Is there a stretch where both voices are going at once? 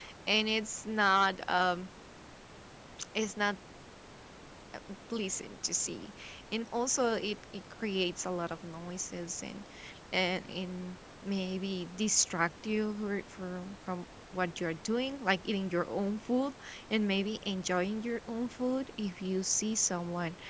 No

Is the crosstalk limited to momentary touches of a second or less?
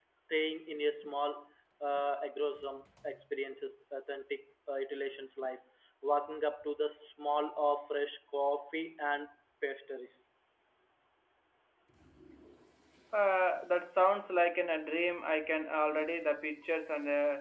Yes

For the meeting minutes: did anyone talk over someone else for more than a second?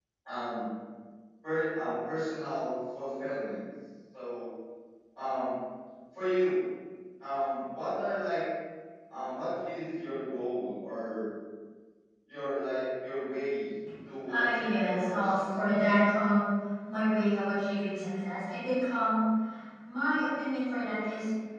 Yes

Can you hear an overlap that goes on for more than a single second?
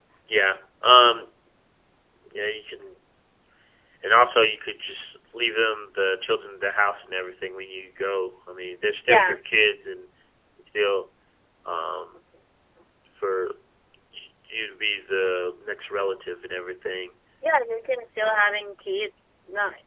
No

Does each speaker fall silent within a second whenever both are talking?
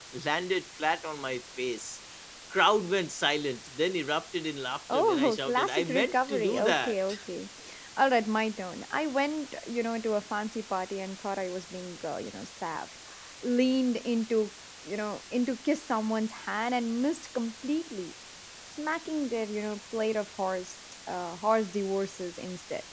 No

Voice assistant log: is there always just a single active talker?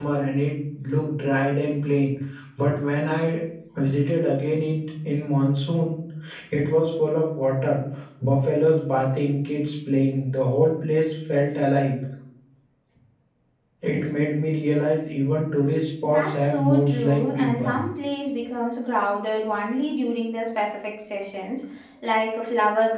No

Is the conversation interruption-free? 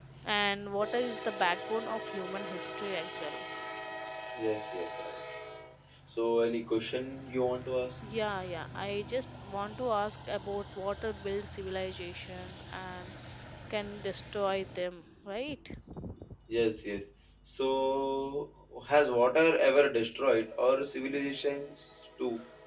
Yes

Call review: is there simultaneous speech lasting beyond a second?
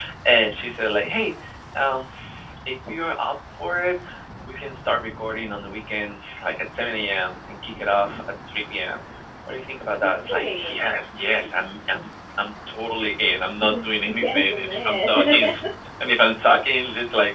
Yes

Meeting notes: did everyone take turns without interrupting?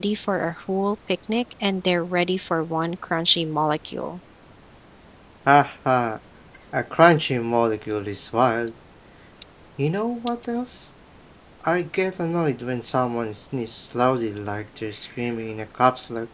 Yes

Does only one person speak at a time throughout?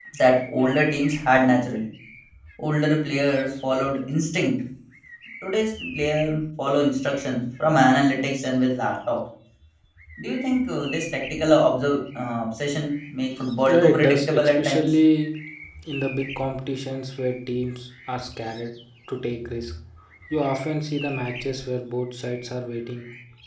No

